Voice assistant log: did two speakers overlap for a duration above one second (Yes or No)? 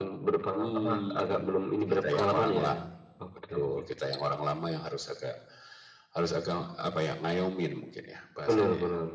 Yes